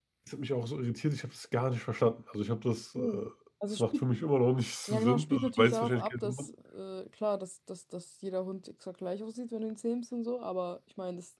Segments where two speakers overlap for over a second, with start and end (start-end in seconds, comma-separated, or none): 4.9-6.5